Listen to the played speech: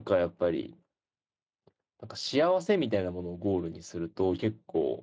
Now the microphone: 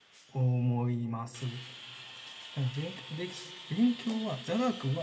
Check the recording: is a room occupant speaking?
Yes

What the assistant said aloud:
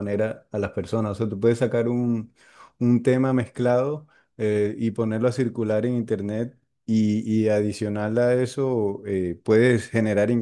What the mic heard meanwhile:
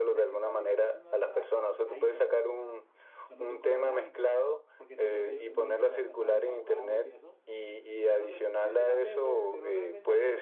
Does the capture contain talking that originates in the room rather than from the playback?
Yes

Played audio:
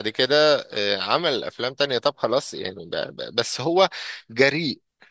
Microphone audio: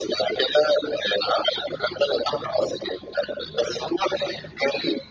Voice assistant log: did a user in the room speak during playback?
No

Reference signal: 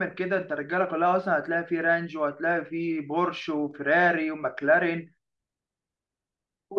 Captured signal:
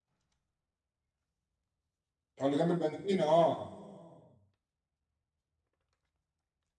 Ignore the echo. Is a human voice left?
Yes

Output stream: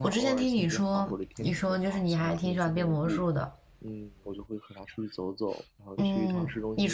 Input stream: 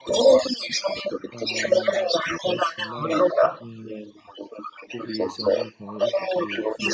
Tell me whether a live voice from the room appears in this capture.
Yes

